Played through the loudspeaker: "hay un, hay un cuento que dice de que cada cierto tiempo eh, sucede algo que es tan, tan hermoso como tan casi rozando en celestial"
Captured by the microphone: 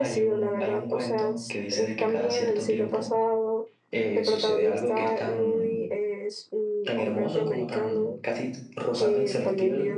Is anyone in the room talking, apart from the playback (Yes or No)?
Yes